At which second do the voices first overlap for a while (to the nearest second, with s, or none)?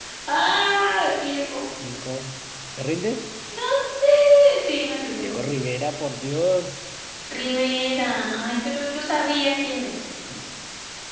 none